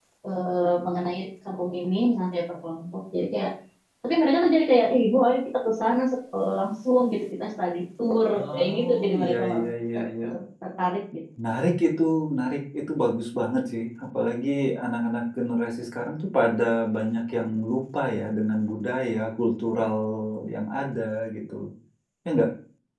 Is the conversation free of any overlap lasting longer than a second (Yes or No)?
No